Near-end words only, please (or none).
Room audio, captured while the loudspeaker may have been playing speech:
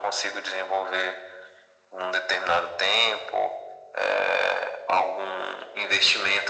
none